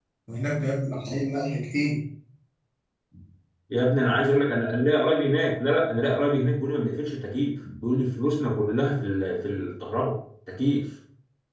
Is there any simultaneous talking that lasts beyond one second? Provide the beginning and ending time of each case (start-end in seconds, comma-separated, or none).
none